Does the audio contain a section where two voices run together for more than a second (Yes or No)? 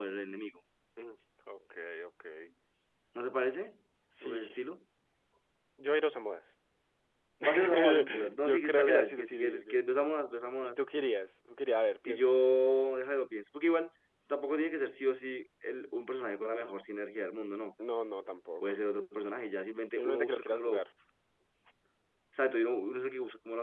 Yes